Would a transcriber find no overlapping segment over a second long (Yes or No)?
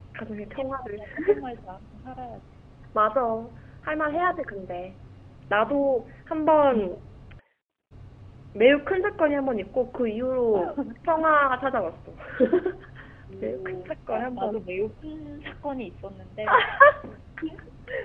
No